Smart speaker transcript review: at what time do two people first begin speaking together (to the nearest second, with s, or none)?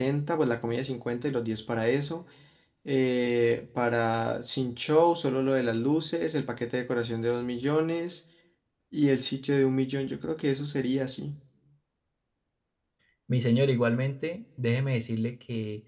none